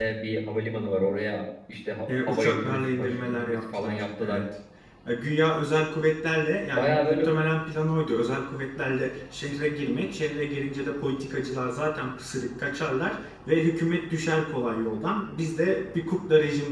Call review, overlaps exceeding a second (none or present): present